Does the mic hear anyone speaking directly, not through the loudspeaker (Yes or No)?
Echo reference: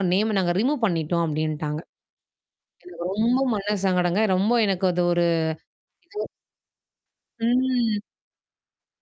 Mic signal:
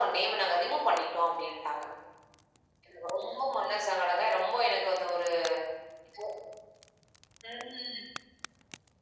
No